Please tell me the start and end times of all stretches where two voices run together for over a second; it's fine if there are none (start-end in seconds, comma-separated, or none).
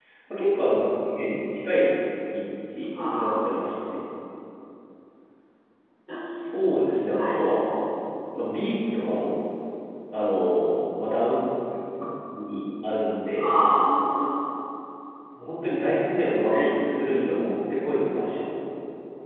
none